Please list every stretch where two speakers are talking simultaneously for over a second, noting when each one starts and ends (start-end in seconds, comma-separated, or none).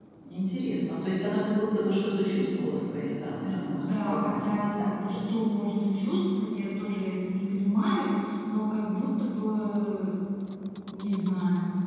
3.7-5.2